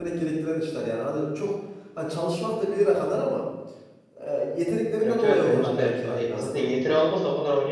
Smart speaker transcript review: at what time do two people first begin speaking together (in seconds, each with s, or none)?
5.0 s